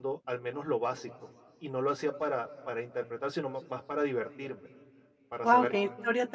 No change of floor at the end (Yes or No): No